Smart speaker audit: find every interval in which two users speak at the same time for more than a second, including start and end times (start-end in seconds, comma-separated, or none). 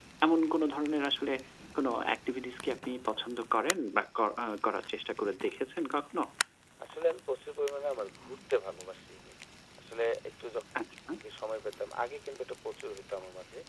none